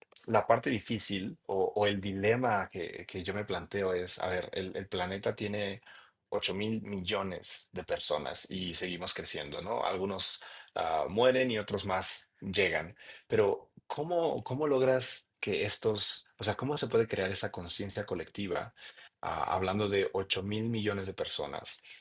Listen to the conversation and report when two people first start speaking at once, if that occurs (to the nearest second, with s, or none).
none